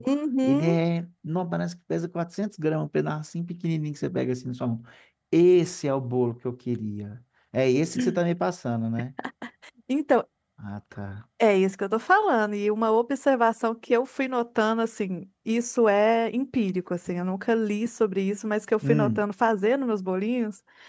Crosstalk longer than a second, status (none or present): none